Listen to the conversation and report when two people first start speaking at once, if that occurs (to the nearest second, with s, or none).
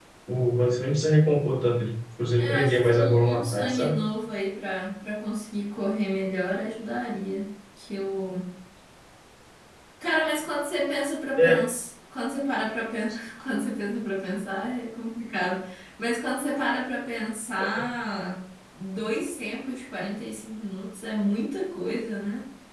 2 s